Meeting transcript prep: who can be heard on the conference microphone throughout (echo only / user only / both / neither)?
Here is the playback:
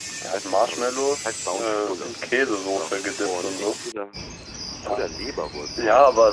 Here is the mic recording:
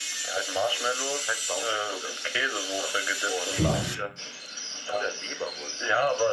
both